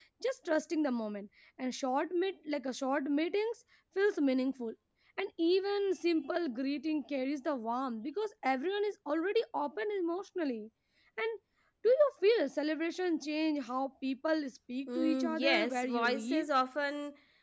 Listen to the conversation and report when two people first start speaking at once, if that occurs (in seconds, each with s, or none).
14.9 s